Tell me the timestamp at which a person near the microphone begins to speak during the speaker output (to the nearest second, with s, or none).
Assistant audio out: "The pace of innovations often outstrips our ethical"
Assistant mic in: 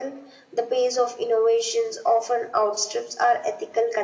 none